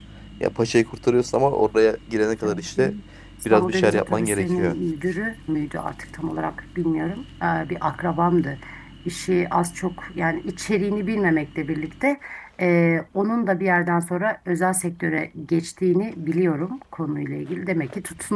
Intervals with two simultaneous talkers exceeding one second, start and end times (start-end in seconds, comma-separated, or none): 3.5-4.8